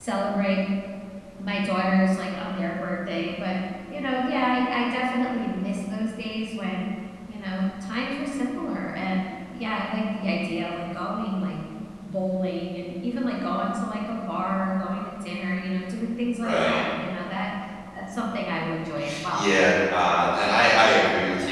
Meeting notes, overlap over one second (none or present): none